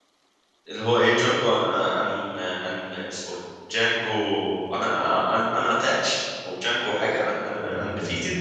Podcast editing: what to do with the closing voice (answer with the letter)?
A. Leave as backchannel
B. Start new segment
B